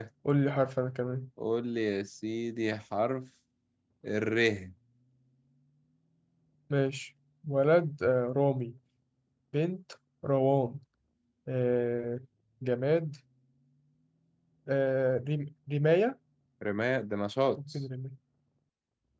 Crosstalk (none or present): none